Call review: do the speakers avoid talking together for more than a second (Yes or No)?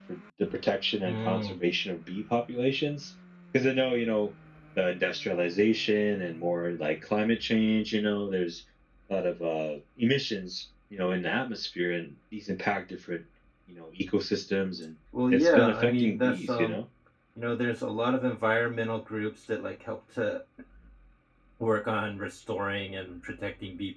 No